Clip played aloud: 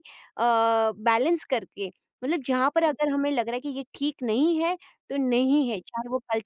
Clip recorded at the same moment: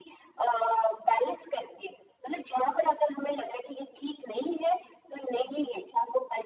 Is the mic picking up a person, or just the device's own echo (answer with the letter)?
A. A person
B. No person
B